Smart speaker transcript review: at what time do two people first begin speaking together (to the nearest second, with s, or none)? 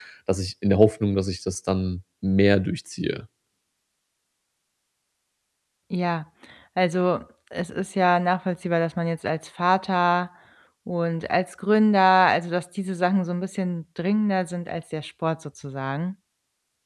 none